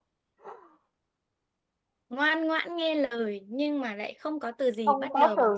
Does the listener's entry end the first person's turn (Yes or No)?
Yes